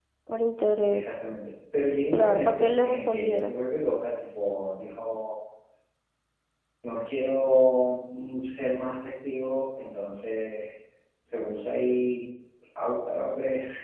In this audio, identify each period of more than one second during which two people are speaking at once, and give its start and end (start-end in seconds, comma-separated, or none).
2.1-3.5